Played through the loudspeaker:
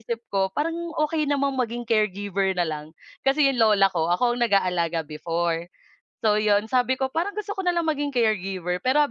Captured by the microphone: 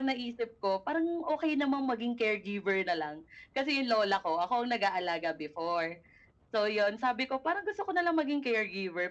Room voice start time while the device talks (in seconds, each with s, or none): none